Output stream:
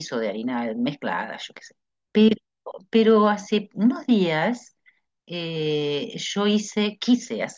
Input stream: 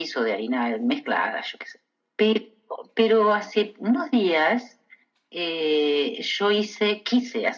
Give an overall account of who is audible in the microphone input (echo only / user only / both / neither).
echo only